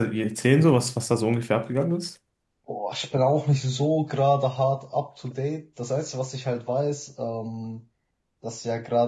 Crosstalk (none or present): none